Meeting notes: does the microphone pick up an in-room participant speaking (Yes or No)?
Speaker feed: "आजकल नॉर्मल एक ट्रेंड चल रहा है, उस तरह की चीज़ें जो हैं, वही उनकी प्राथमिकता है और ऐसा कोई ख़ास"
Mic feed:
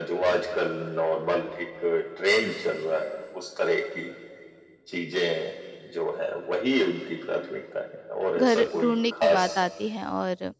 Yes